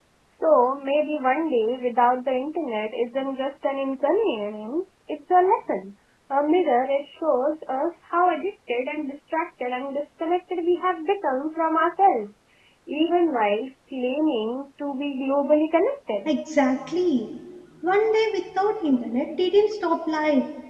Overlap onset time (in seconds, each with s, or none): none